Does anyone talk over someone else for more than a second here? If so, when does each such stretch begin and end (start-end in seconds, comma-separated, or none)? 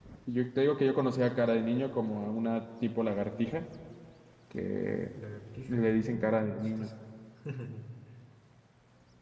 5.7-6.9